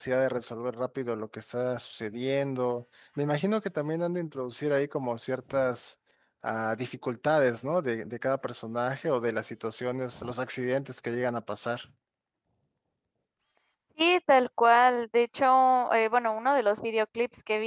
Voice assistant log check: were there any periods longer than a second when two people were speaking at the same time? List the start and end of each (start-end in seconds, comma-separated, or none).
none